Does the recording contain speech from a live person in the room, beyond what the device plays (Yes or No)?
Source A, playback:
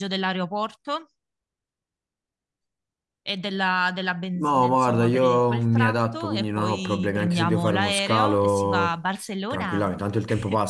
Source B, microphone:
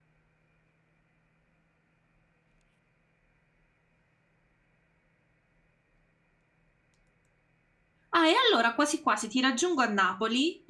Yes